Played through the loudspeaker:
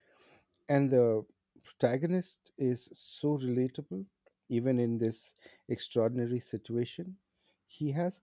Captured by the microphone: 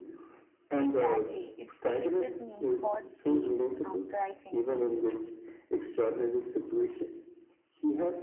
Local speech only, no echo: Exactly. It stayed with me for days after I finished it.

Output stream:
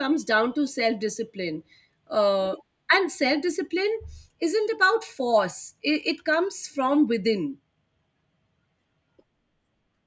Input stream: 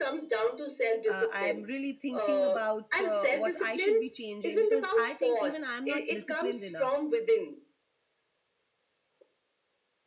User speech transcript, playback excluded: Uh, I'm really thinking about uh, what I should be changing because I think even I'm not disciplined enough.

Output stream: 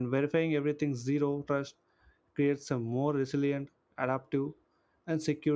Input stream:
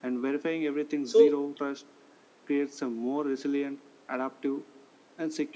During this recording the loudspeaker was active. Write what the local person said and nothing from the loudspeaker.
so

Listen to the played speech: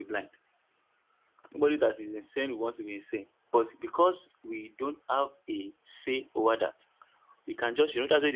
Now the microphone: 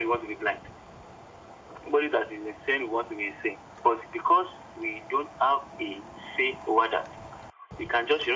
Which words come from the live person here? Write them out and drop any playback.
none

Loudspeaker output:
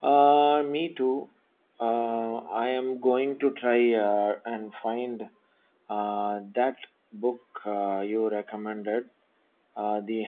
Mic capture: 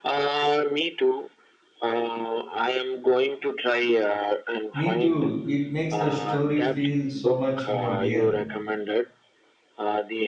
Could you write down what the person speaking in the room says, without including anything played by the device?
Me too. It makes the story feel so much more real.

